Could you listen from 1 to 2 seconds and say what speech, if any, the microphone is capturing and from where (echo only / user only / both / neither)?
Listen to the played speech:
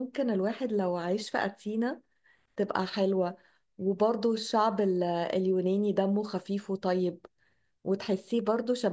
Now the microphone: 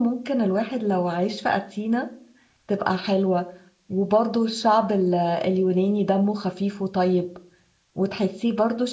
echo only